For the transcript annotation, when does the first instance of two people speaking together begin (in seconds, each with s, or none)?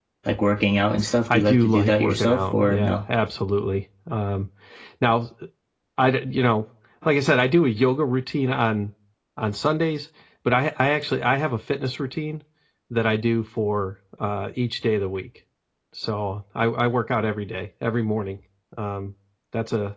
1.3 s